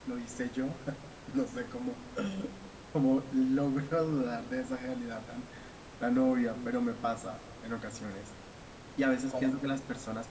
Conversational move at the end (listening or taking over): listening